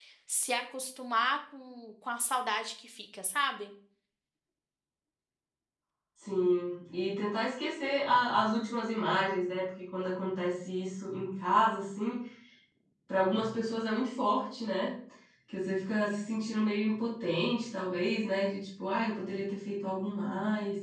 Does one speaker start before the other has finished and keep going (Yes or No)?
No